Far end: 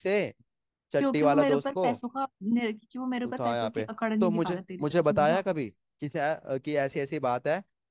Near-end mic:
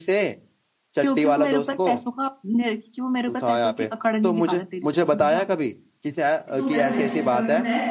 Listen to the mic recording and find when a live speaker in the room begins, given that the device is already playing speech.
6.5 s

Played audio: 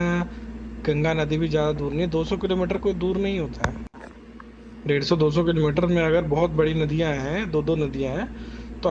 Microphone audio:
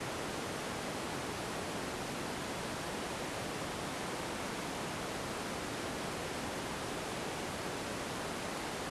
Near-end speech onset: none

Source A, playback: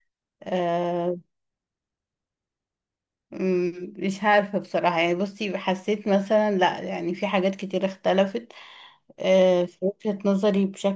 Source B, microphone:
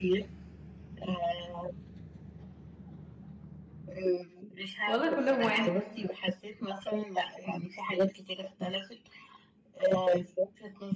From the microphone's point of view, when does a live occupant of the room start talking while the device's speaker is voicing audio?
4.8 s

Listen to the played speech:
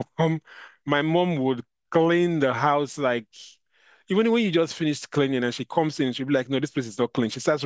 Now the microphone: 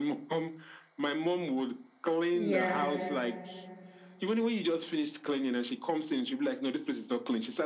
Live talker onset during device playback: 2.3 s

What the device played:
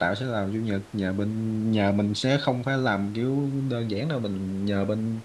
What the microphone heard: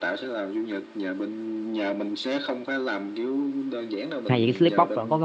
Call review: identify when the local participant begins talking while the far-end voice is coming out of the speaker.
4.3 s

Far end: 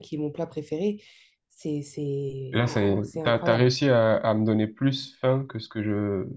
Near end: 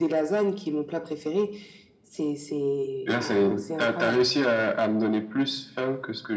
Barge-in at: none

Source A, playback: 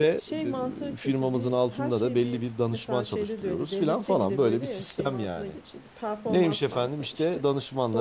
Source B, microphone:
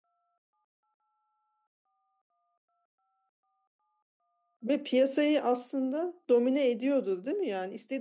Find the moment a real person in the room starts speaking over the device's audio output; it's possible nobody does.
4.6 s

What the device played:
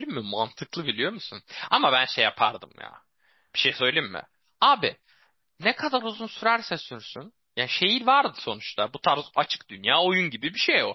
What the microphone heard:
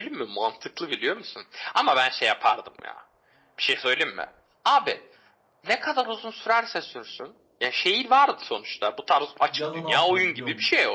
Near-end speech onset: 9.4 s

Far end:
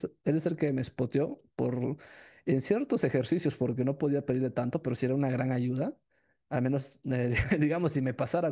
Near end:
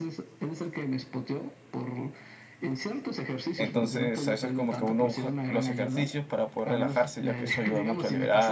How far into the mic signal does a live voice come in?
3.6 s

